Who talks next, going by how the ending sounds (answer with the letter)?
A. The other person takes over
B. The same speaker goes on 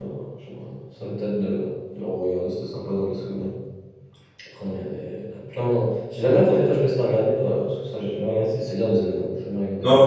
A